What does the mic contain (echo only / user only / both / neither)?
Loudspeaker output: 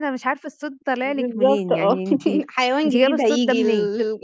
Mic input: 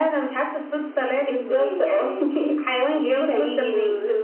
echo only